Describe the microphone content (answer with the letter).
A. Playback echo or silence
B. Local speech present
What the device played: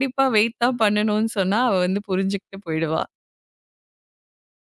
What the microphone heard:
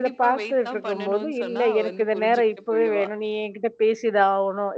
B